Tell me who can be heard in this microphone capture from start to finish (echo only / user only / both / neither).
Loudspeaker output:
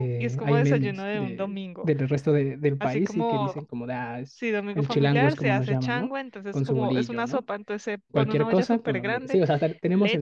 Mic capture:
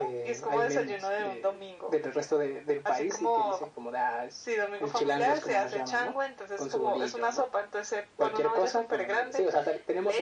echo only